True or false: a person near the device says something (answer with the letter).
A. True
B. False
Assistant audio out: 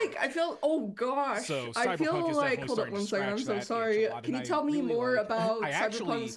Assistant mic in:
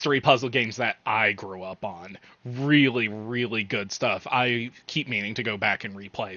A